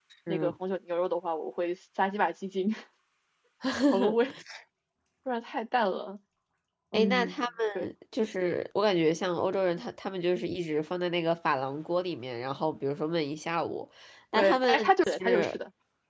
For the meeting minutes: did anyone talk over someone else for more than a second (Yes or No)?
Yes